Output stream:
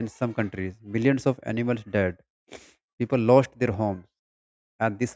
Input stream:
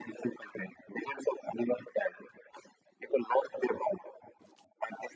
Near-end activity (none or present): none